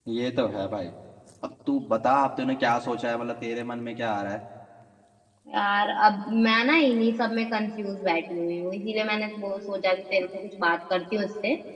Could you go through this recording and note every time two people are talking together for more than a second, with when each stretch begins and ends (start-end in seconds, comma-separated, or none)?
none